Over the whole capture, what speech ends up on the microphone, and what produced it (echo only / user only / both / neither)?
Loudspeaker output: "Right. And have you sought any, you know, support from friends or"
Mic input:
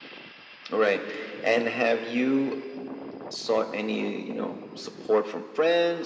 echo only